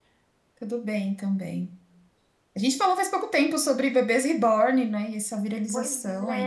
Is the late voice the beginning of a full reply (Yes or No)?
Yes